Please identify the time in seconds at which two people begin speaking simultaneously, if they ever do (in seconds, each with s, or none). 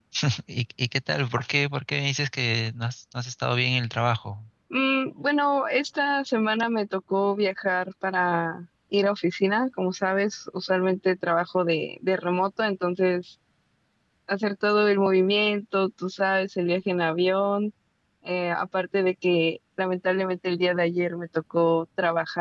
none